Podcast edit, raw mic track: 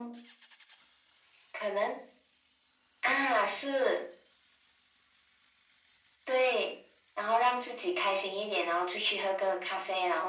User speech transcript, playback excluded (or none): none